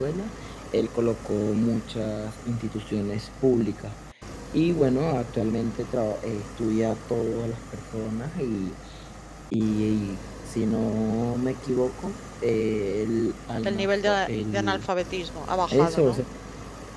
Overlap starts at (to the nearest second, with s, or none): 14 s